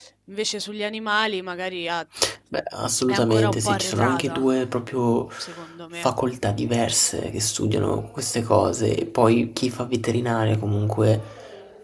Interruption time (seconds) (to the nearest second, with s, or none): 3 s